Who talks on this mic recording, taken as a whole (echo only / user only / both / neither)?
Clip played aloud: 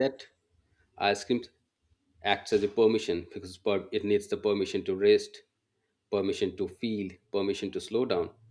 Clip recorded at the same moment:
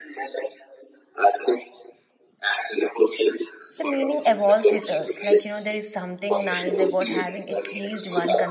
both